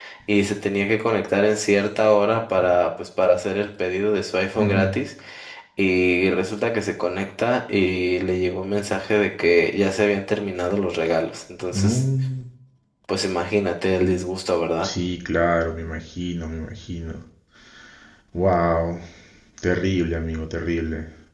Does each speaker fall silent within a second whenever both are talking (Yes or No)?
Yes